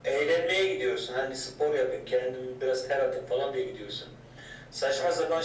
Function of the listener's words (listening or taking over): listening